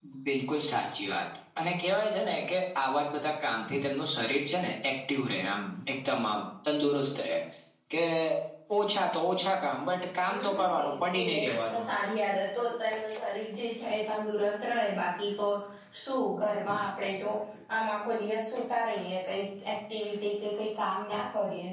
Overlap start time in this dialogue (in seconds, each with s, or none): 10.3 s